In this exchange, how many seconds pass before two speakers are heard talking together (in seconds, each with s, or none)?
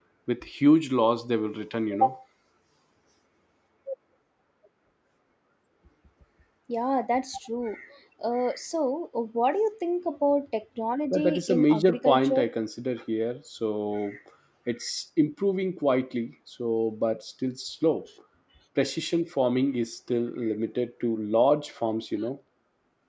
11.1 s